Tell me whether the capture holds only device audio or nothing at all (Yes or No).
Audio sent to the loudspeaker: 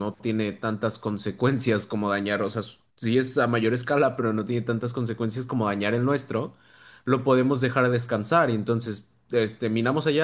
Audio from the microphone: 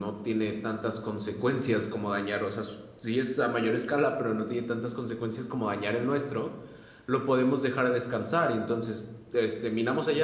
Yes